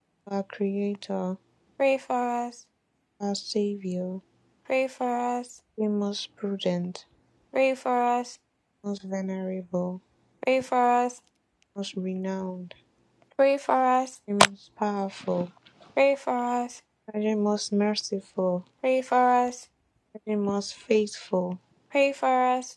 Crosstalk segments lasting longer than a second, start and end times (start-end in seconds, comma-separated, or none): none